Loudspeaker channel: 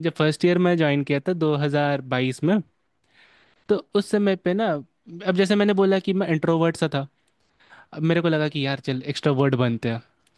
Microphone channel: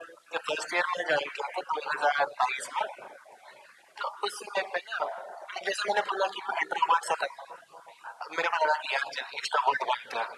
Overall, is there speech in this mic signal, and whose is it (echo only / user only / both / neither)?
echo only